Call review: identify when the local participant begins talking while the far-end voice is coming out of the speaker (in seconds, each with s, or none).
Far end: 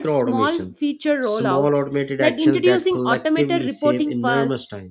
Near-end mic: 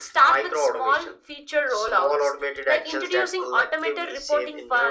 none